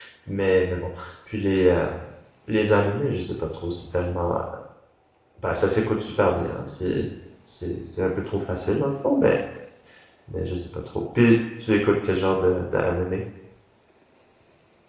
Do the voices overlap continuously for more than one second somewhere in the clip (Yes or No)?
No